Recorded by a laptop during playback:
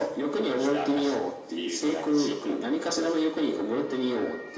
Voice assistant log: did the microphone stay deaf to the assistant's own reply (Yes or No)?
No